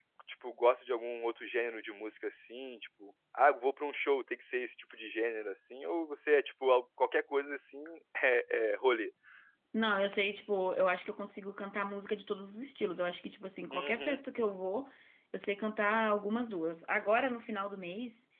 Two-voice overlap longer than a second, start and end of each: none

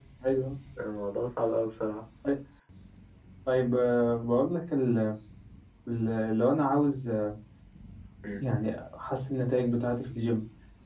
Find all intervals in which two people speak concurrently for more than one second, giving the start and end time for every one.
none

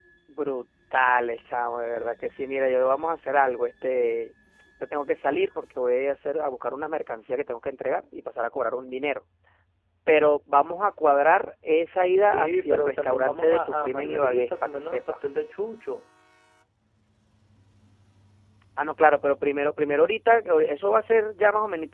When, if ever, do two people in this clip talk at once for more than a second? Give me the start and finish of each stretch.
12.3-15.0

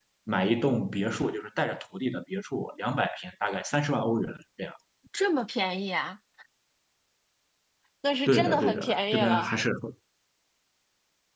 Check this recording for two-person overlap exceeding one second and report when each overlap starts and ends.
8.3-9.5

